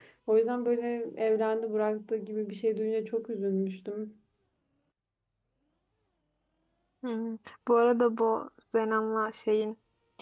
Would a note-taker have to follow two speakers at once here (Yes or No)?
No